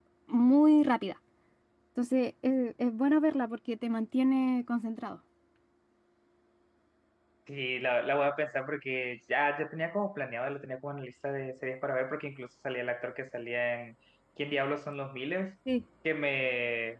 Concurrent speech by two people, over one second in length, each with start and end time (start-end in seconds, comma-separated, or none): none